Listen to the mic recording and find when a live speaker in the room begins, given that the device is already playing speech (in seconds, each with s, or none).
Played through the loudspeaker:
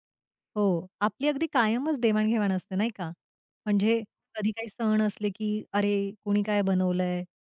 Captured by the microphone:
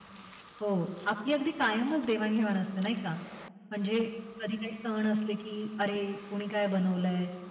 none